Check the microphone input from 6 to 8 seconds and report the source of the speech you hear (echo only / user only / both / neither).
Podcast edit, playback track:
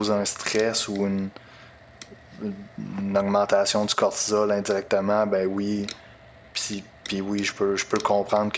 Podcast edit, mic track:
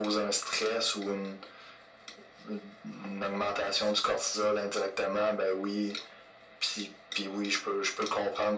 echo only